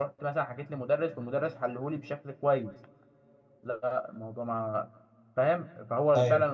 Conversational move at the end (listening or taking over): listening